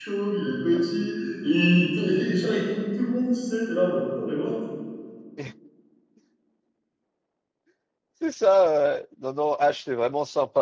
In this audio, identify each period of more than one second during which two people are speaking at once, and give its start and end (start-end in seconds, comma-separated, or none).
none